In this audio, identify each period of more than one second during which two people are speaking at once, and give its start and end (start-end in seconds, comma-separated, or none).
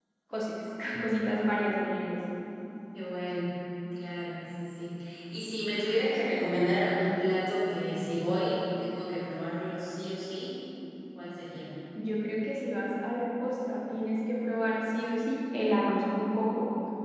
none